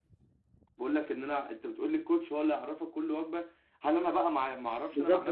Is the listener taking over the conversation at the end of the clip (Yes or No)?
Yes